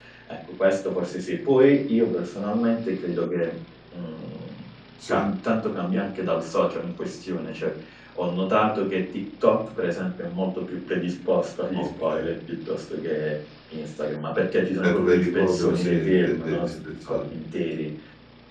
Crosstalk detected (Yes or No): Yes